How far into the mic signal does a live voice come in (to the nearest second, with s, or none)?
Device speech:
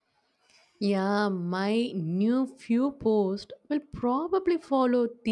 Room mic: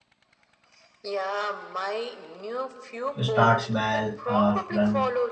3 s